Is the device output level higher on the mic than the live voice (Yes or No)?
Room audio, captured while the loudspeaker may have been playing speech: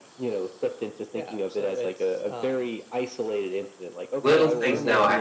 No